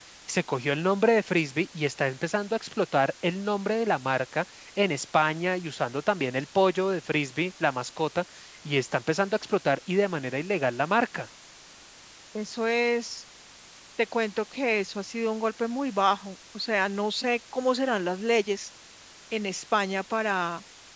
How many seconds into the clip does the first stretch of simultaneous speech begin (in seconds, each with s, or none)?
none